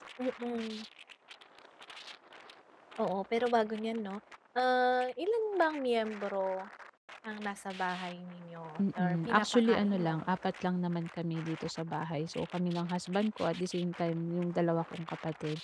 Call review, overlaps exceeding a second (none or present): present